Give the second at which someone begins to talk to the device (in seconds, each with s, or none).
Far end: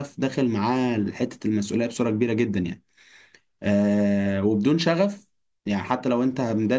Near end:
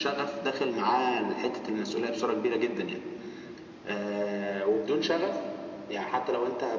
none